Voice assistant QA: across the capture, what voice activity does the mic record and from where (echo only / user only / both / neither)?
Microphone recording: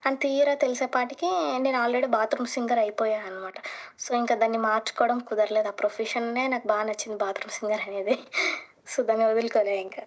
echo only